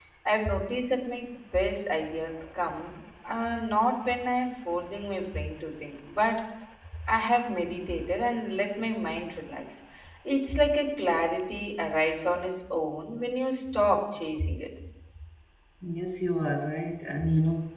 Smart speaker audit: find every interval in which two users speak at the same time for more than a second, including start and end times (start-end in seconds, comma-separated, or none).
none